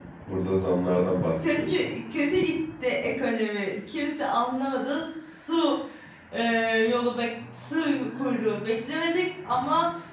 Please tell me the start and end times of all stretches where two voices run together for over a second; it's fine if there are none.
none

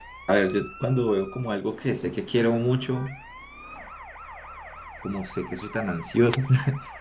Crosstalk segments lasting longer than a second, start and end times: none

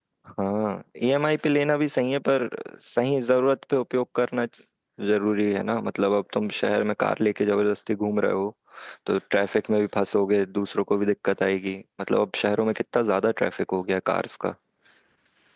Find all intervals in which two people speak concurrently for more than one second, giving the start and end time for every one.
none

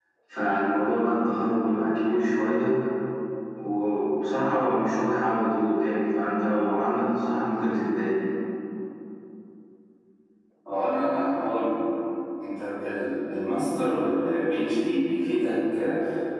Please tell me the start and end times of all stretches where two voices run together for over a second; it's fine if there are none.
none

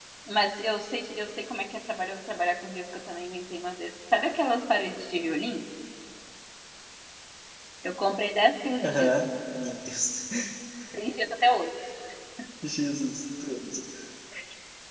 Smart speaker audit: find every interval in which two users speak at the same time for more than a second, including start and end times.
none

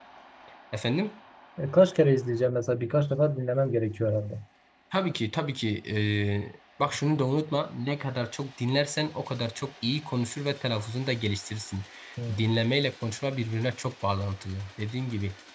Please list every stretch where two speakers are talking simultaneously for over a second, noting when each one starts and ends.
none

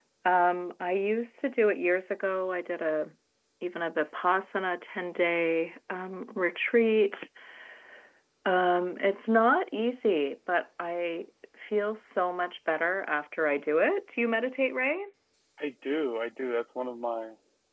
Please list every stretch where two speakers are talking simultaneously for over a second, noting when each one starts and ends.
none

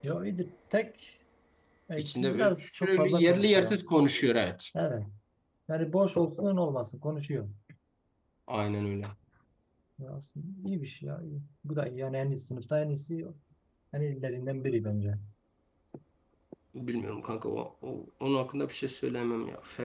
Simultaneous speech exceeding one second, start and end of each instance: 2.0-3.8

